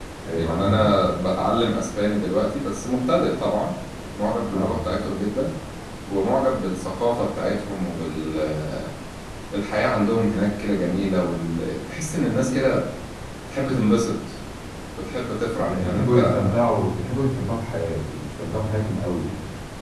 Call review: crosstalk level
present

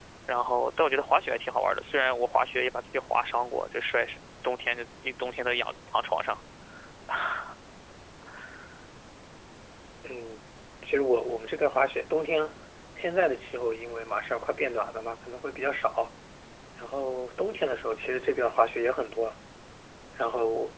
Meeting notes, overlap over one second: none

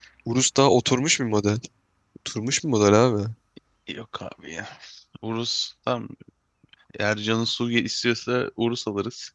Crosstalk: none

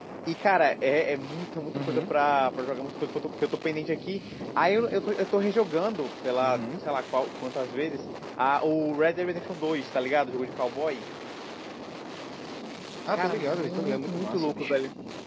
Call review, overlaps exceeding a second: present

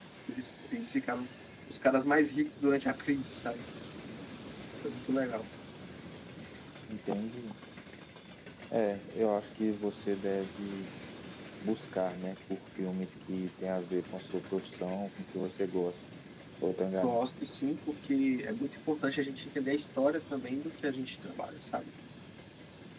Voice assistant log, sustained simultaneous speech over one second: none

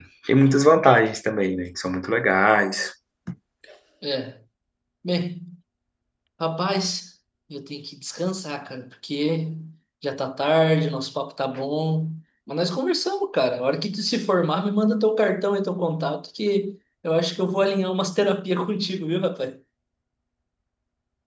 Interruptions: none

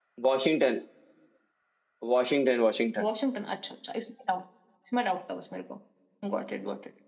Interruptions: none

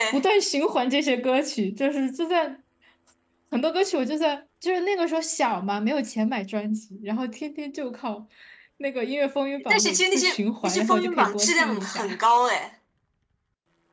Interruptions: present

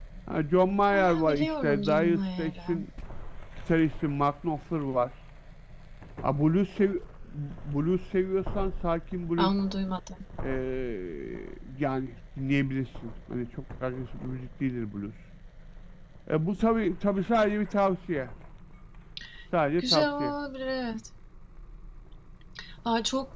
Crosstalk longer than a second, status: present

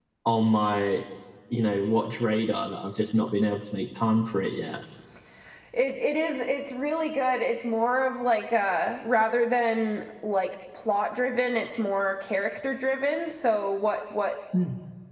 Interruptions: none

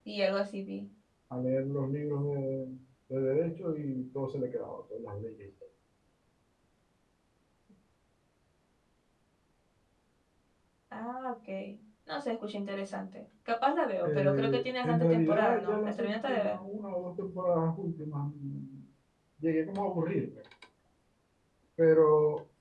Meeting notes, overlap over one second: present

